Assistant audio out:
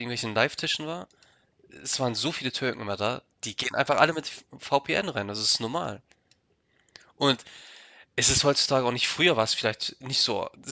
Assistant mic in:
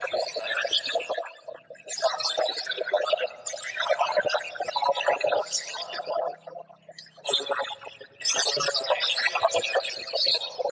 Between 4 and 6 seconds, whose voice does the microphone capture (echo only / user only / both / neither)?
echo only